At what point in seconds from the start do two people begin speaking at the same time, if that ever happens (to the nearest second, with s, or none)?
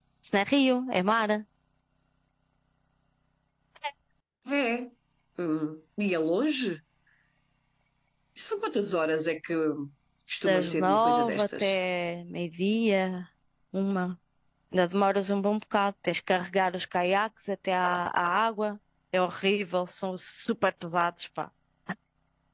10 s